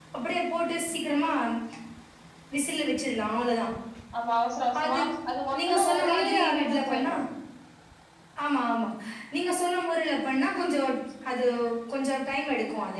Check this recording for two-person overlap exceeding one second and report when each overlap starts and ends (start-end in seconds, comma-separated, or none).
5.6-7.1